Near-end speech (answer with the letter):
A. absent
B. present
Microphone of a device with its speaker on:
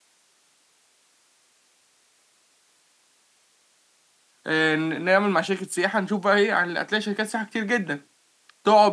B